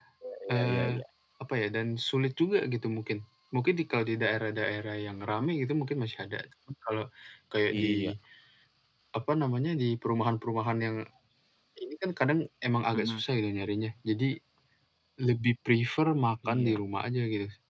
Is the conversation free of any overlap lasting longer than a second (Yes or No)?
Yes